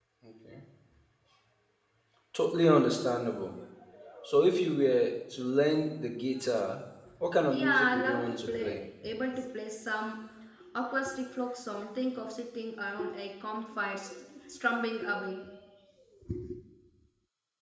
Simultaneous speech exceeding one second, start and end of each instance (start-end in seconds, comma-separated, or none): 7.5-8.8